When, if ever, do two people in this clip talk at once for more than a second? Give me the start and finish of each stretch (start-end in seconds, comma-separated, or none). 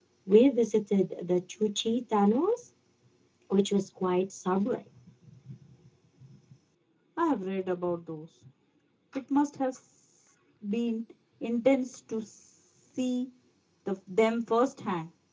none